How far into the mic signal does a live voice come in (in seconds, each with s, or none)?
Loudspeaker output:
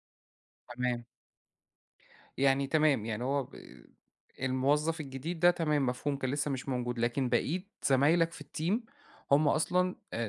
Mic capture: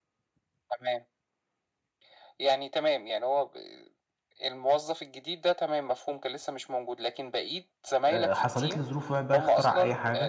8.1 s